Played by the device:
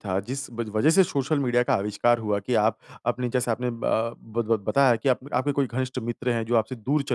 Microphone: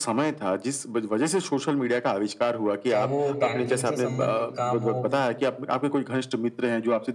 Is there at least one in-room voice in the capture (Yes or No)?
Yes